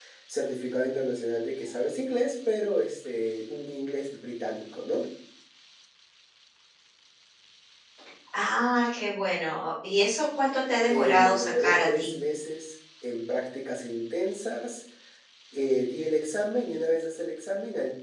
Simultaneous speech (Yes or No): Yes